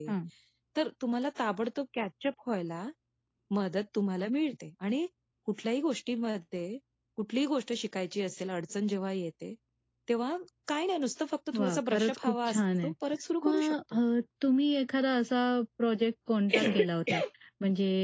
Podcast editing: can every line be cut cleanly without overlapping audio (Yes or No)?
No